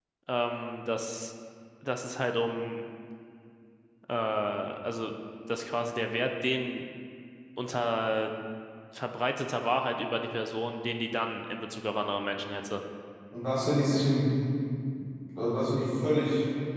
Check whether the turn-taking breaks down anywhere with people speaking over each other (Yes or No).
No